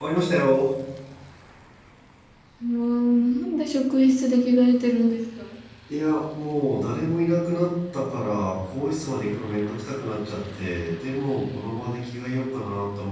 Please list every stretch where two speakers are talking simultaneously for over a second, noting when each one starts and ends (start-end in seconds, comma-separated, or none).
none